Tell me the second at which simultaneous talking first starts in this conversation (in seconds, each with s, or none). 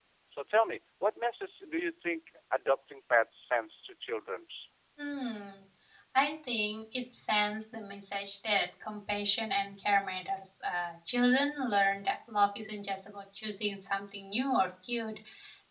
none